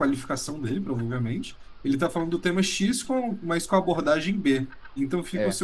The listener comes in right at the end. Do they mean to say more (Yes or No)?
No